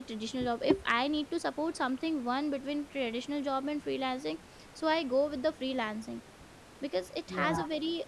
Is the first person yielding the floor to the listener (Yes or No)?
No